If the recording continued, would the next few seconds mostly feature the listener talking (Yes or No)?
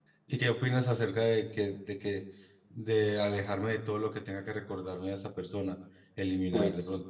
No